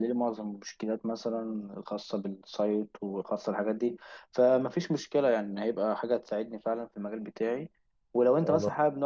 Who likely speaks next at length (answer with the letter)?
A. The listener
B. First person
B